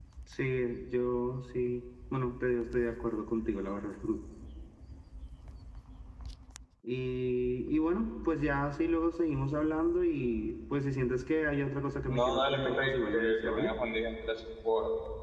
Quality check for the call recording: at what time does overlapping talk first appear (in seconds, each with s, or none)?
12.1 s